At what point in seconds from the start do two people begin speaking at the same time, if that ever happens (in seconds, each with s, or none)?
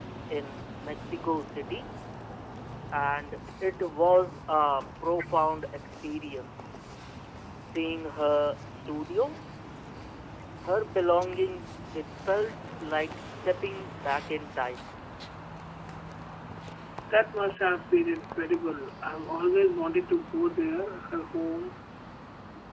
none